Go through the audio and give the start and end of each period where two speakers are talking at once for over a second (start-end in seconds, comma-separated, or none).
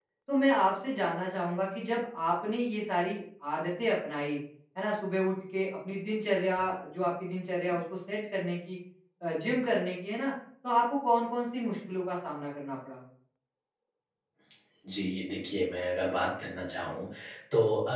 none